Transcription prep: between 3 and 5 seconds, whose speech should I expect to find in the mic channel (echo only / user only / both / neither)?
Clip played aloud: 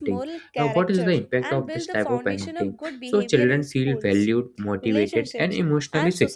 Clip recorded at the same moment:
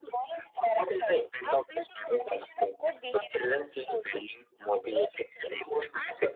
echo only